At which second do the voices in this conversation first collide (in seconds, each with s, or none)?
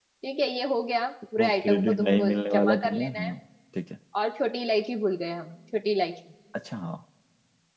1.4 s